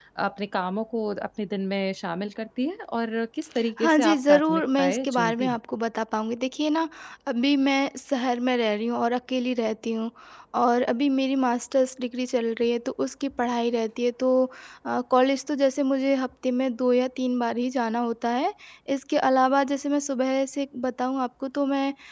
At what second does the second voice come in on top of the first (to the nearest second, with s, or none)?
4 s